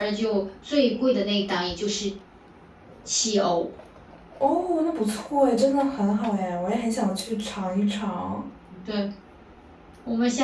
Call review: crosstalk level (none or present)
none